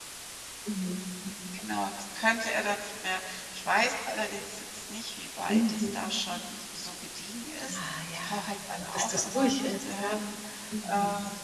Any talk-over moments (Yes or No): Yes